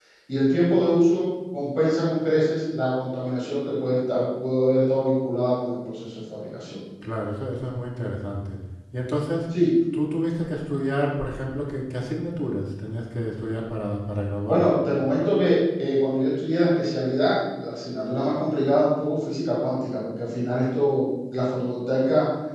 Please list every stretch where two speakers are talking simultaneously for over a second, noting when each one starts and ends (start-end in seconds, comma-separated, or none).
none